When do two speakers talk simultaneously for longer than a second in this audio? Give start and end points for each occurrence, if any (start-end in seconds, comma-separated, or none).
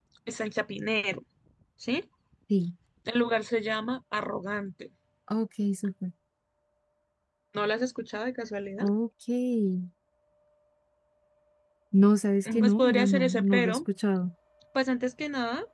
12.4-13.8